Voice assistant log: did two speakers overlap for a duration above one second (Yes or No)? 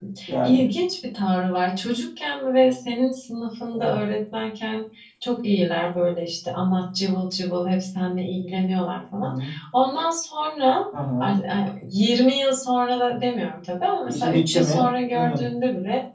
Yes